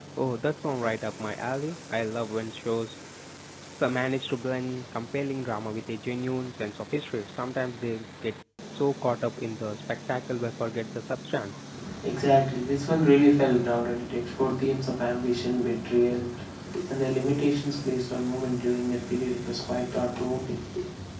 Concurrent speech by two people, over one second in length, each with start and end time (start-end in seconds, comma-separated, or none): none